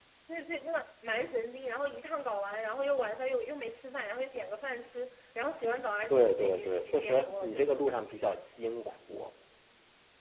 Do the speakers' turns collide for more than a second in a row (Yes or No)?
Yes